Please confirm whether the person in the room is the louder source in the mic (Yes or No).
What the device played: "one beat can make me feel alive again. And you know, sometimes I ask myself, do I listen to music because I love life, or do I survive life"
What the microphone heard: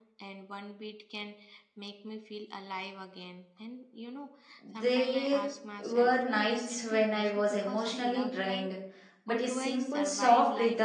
Yes